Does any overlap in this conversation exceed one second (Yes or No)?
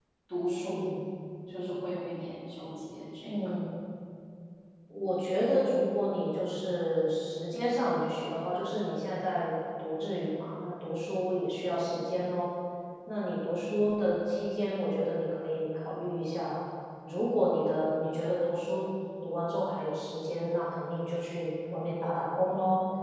No